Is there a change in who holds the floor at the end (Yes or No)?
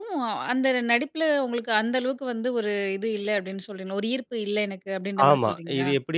Yes